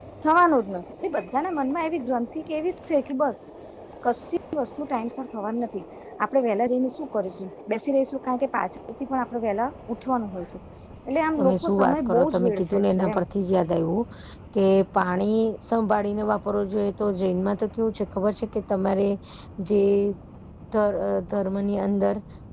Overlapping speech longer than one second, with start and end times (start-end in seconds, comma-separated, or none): 11.4-13.2